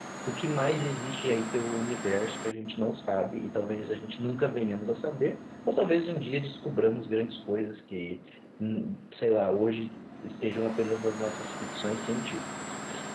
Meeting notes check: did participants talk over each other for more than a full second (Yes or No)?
No